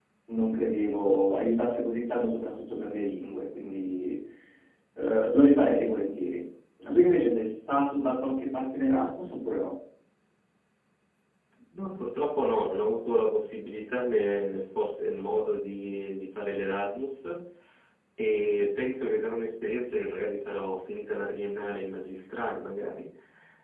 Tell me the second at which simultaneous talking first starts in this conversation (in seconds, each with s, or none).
none